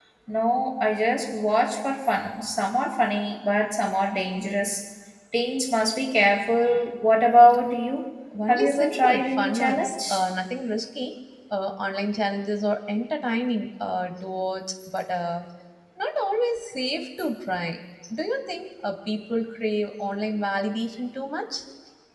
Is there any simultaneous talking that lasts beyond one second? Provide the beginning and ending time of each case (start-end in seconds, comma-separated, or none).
8.5-10.2